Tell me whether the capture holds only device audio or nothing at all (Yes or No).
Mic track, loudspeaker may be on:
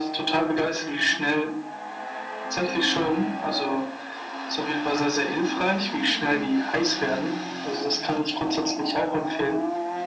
Yes